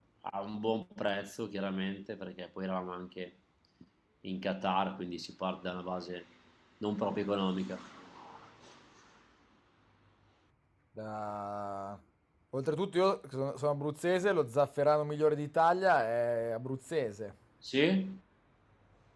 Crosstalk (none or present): none